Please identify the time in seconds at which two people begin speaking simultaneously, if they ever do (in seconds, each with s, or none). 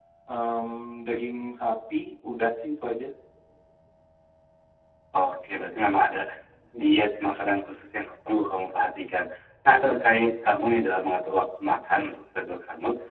none